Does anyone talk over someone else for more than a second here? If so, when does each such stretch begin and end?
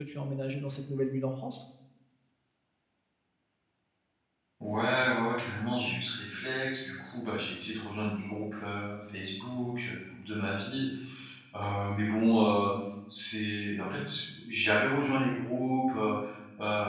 none

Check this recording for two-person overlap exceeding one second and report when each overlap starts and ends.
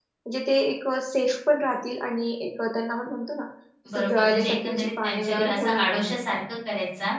4.0-6.2

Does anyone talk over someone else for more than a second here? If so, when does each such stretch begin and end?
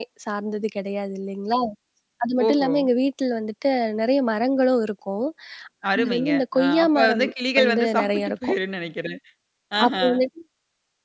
6.0-8.6

